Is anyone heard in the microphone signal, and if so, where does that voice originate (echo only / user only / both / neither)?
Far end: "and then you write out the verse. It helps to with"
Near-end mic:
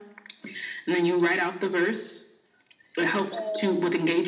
both